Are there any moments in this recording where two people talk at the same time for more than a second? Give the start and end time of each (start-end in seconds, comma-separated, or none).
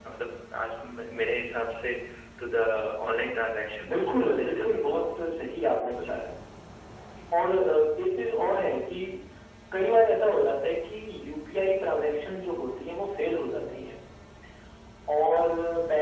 3.9-5.2